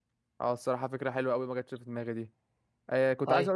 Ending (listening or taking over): listening